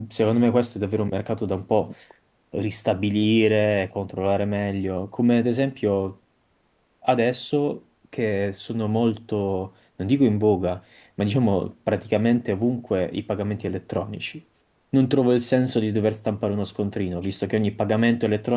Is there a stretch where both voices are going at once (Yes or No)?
No